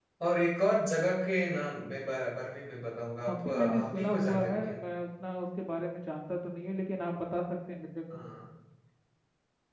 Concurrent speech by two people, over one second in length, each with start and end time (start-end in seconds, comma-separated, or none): 3.2-4.8